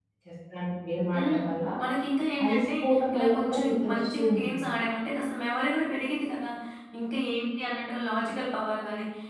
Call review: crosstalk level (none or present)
present